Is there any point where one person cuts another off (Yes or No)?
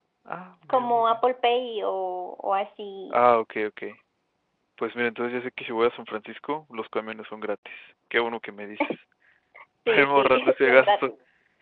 Yes